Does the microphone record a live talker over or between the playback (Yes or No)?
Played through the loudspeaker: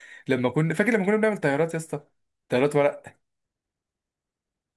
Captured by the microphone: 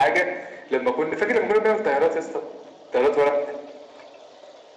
No